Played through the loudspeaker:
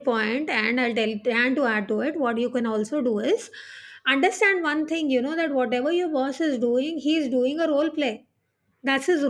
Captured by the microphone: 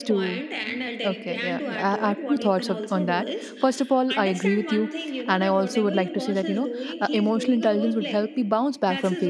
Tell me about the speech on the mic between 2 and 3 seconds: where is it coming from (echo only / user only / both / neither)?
both